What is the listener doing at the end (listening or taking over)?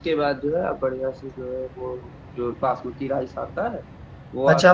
taking over